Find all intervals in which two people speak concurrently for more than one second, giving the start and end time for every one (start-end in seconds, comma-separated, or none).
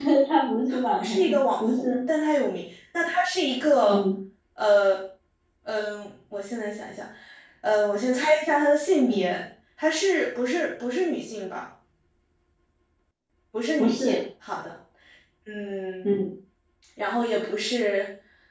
0.7-2.0